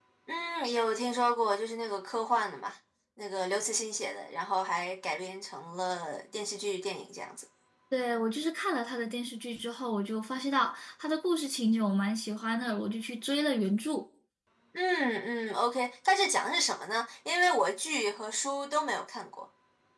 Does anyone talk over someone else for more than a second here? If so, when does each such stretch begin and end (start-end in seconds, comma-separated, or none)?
none